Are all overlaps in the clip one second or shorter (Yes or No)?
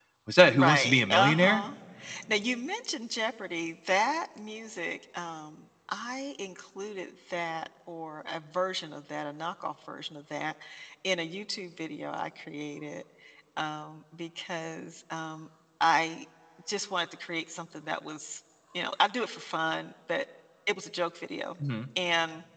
No